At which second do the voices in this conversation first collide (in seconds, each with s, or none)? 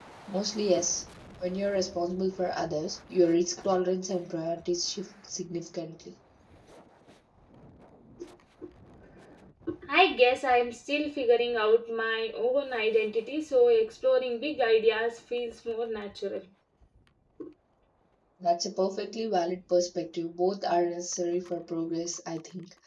none